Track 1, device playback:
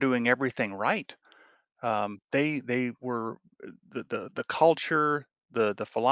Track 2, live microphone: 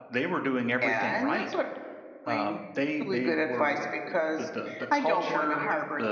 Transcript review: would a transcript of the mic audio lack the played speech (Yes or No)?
No